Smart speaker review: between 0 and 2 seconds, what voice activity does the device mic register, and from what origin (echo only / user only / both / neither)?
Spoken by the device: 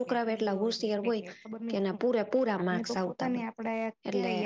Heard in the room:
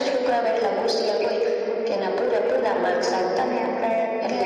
echo only